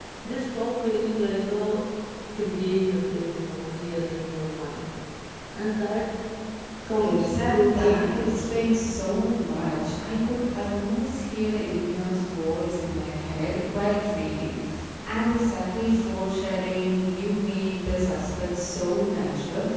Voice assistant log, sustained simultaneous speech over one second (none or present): present